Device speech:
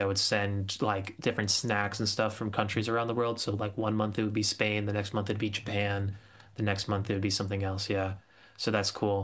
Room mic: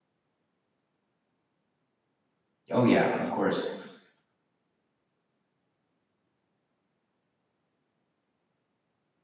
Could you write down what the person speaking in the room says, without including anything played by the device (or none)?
Oh yeah, of course.